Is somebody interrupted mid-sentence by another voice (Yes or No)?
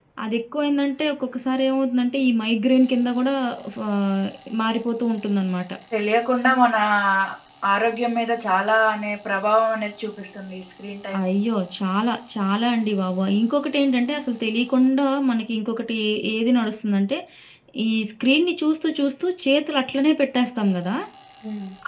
No